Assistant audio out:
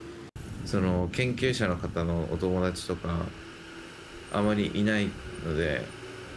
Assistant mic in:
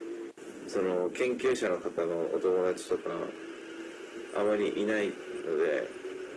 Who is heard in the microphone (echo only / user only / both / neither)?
echo only